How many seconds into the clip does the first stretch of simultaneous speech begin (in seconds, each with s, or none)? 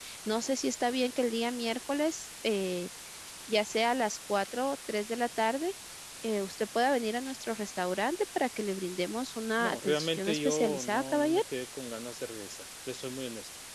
9.6 s